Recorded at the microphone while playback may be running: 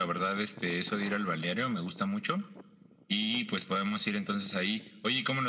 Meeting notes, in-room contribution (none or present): none